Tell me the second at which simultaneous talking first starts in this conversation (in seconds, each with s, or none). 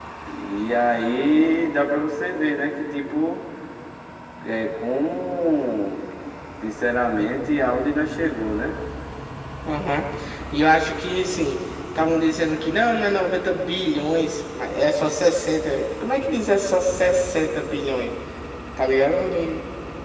none